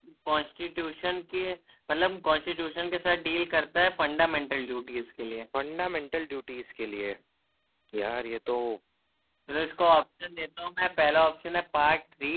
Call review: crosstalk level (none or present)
none